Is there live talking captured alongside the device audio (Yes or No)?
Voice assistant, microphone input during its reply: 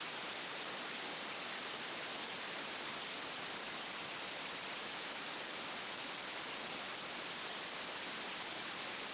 No